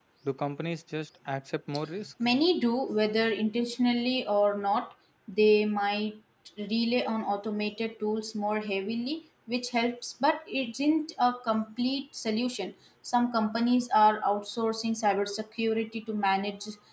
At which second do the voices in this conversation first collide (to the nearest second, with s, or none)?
none